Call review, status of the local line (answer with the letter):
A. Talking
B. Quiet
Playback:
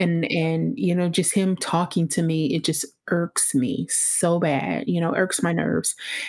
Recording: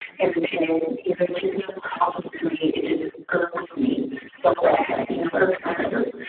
B